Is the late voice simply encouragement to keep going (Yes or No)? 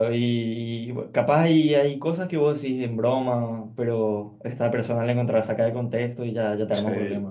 No